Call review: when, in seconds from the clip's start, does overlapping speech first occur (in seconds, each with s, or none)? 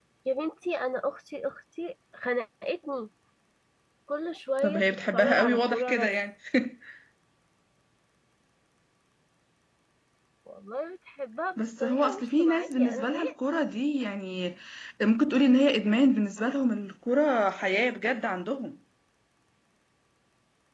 4.6 s